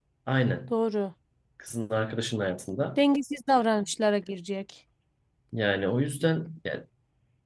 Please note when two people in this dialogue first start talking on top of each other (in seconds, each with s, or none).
none